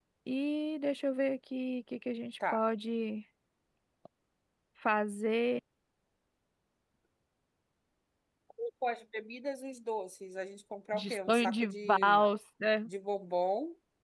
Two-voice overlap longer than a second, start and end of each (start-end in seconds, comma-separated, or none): 10.9-12.2